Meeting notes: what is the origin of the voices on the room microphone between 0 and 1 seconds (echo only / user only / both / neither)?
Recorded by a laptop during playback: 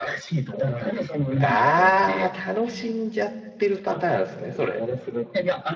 echo only